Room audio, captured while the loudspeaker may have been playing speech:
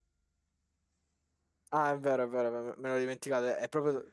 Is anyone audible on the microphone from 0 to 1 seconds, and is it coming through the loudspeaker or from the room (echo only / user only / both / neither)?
neither